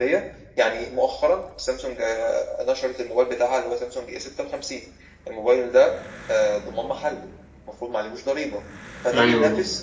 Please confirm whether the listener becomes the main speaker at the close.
No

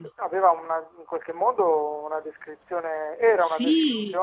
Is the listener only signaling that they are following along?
Yes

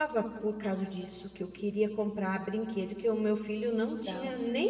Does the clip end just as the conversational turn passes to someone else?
No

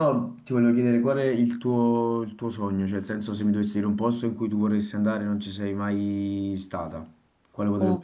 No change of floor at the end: No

